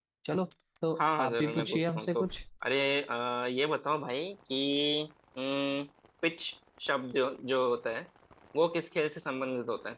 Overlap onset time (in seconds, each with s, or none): 1.0 s